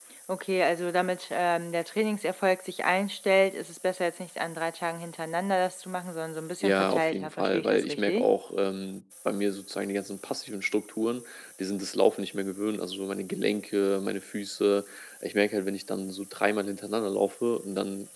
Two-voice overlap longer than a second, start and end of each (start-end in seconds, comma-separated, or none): 6.6-8.3